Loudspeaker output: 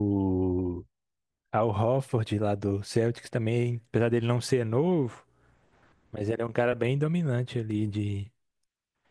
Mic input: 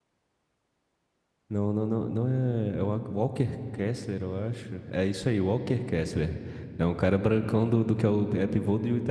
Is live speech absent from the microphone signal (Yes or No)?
No